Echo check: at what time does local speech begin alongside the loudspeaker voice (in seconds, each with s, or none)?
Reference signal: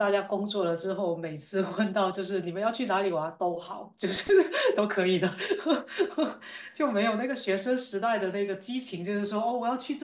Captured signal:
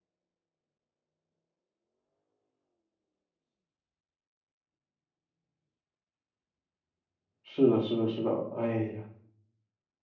7.4 s